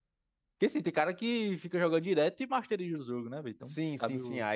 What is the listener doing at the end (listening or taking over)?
taking over